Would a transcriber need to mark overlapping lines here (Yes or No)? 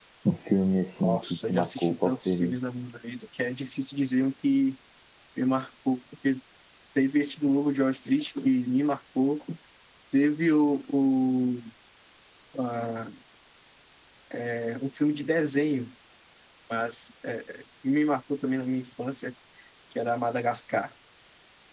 Yes